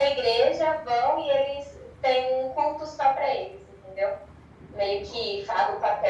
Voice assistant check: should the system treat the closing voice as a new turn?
No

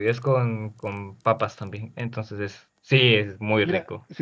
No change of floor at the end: No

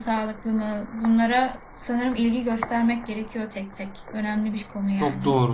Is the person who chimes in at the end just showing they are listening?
No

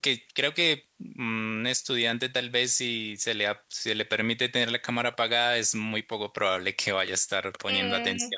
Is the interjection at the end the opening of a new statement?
Yes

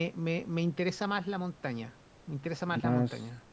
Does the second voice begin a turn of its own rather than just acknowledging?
Yes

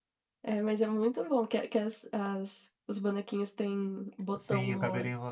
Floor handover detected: Yes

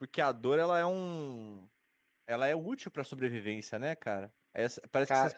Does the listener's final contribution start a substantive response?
No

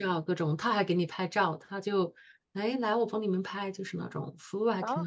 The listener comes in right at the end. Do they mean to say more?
Yes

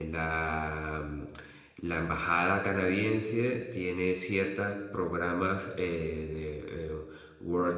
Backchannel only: Yes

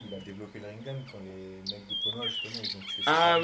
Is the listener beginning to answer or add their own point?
Yes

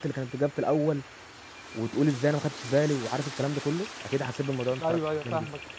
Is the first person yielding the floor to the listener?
Yes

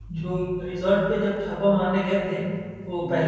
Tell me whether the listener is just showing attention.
Yes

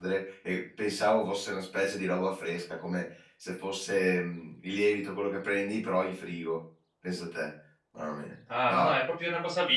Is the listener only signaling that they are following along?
No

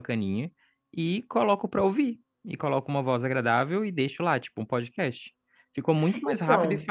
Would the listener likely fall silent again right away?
Yes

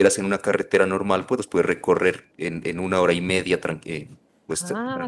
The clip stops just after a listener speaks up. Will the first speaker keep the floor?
No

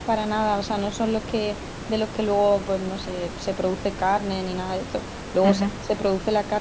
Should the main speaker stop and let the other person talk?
No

